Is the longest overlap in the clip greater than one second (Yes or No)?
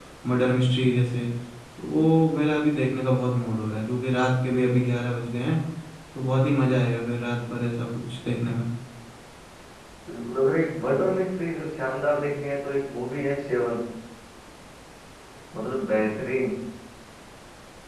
No